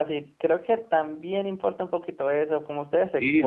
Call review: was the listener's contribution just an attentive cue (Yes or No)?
No